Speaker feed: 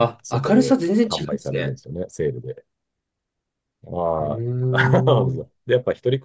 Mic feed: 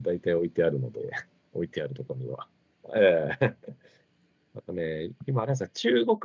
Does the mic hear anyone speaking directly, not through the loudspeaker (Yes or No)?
Yes